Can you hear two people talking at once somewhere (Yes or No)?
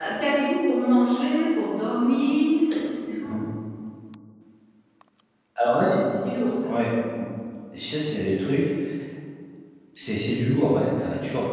No